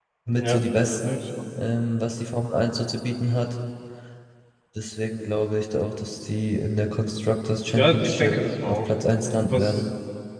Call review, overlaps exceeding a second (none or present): present